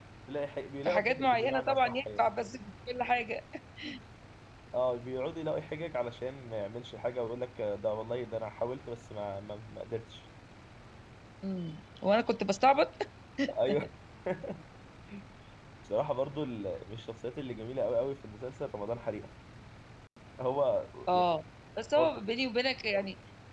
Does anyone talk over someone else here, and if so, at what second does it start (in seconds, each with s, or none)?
0.8 s